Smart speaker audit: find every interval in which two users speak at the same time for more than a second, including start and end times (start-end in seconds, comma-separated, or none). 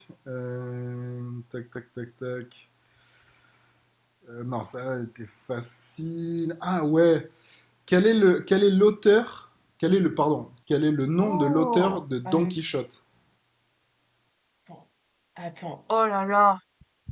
11.2-12.5